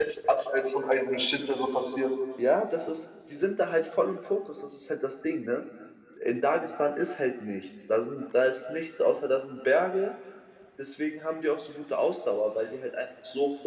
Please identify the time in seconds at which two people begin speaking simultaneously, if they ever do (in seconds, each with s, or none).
none